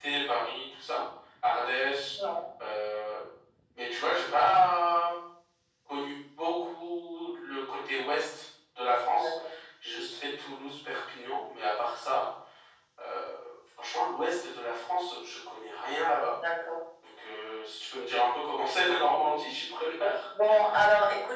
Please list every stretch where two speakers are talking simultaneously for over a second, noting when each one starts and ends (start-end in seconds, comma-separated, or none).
none